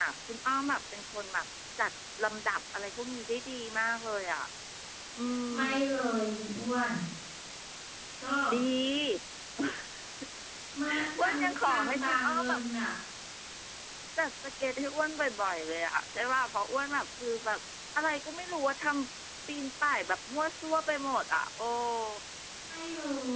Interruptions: present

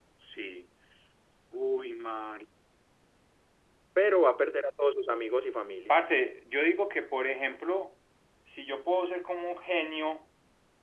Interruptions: none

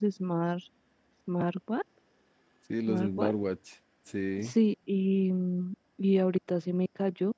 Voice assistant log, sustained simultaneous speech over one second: none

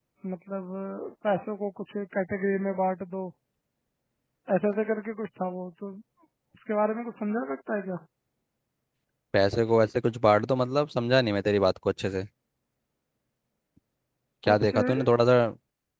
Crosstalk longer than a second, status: none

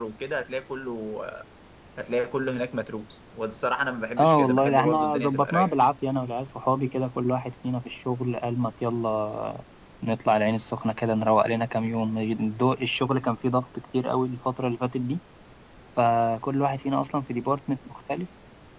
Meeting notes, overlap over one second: present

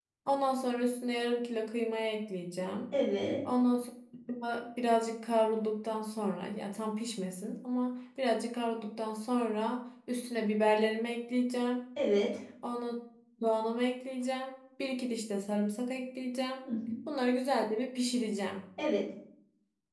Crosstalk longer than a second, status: none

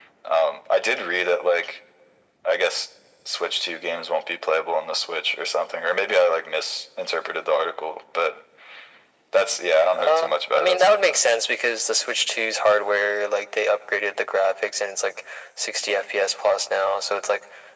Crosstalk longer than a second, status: present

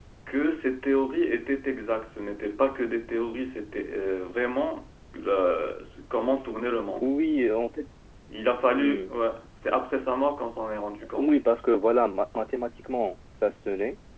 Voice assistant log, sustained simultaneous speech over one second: none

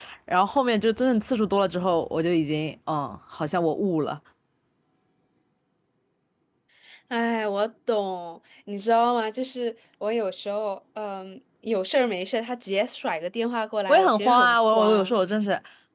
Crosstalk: present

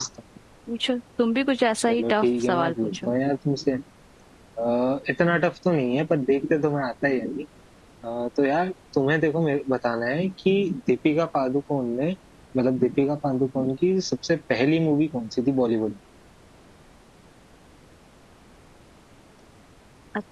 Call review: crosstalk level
present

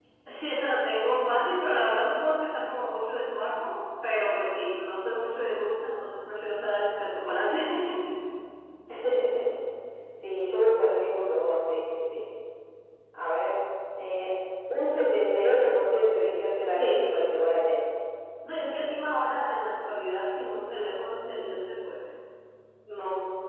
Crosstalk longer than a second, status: none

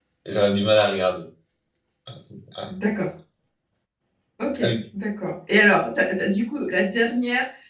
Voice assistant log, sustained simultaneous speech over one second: none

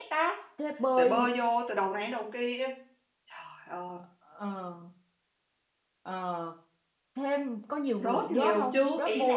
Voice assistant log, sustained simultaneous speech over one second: present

